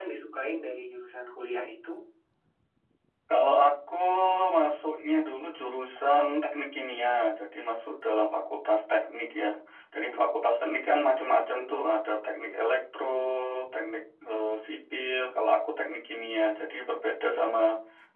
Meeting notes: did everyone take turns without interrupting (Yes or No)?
Yes